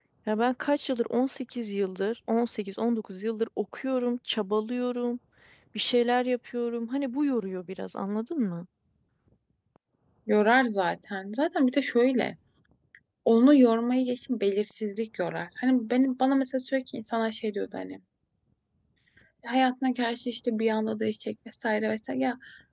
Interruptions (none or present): none